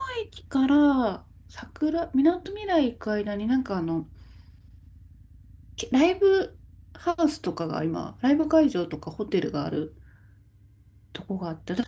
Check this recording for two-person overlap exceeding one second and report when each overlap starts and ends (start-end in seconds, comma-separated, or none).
none